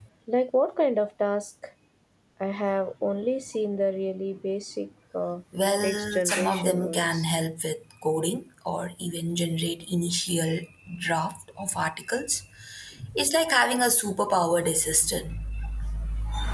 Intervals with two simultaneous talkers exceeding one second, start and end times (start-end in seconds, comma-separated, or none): 5.8-7.2